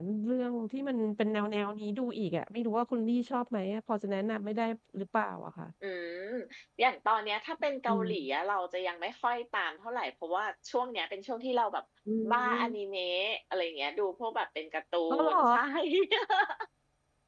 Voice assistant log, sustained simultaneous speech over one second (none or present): none